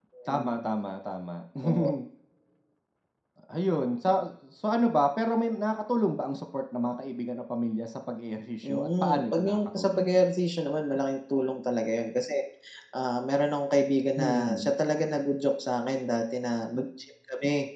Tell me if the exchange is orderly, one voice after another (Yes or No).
No